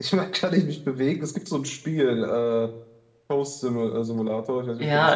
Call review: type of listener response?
taking over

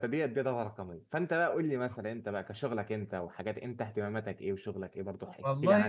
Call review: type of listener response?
taking over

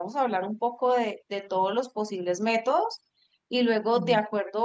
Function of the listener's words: listening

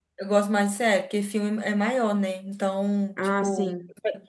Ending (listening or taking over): listening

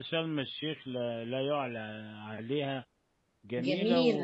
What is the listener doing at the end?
listening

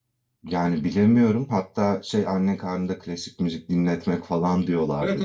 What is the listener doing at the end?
taking over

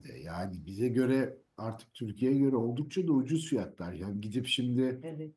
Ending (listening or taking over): listening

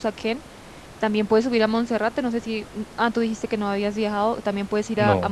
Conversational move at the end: listening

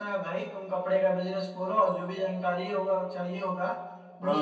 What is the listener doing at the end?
listening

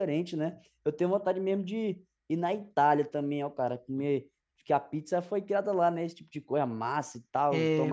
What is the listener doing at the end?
taking over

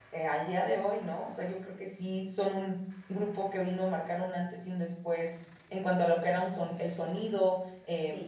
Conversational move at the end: listening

